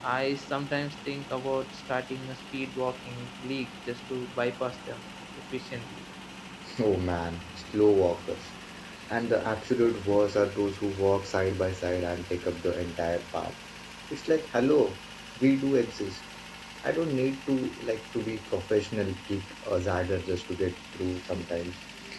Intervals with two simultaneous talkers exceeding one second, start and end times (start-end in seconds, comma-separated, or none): none